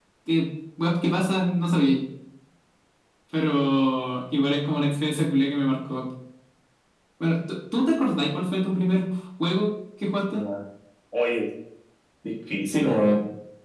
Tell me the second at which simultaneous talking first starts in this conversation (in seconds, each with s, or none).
none